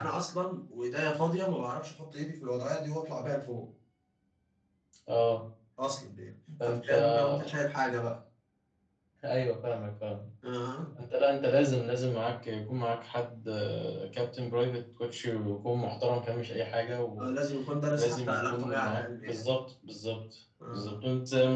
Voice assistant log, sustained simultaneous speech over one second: present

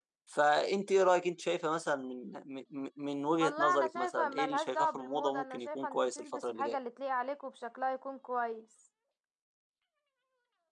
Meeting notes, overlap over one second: present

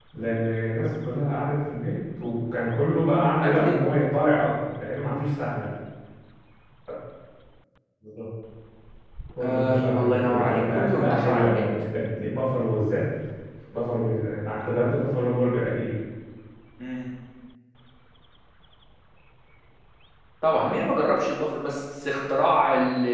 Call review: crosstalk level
present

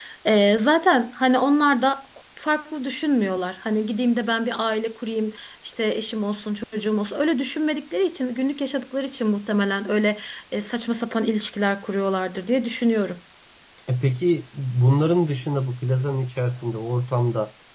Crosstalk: none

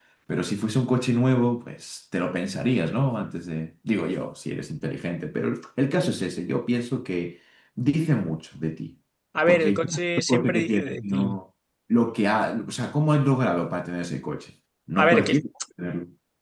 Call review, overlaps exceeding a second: present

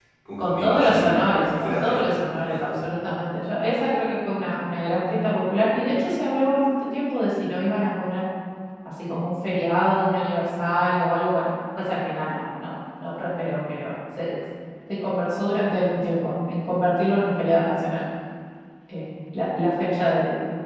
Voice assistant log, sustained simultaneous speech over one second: present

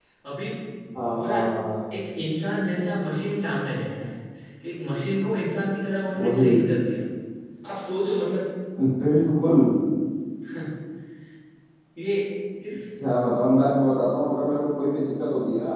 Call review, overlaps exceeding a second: none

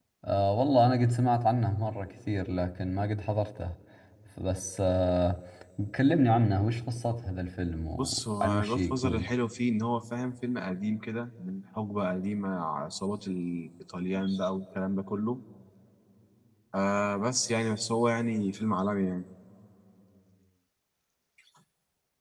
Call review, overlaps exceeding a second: present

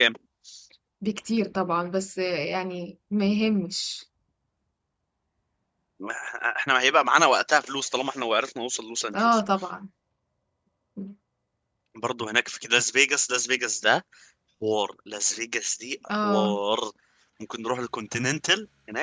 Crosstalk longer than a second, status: none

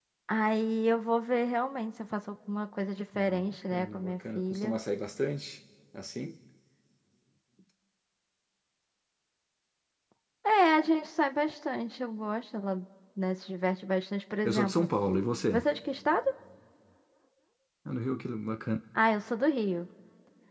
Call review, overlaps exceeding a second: present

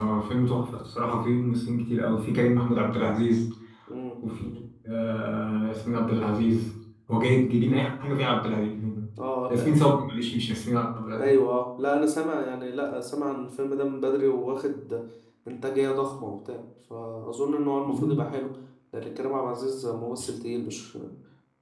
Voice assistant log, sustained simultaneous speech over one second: none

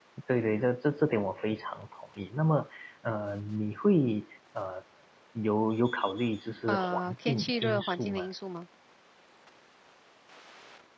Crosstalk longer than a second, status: present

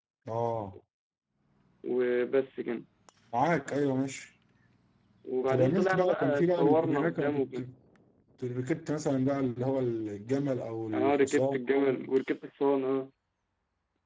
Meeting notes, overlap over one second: present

